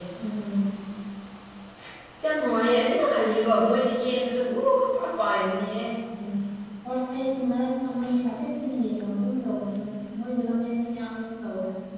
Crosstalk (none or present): none